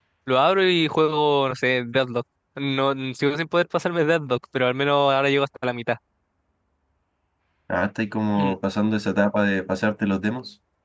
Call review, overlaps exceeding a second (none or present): none